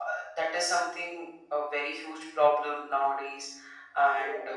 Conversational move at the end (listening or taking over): listening